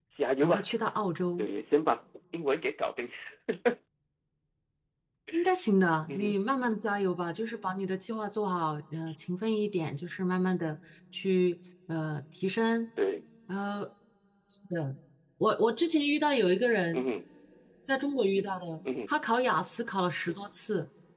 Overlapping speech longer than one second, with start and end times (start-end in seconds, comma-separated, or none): none